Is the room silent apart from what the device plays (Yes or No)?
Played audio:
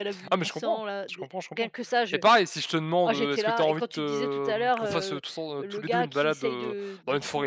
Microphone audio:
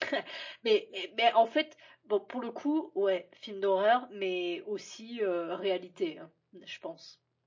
No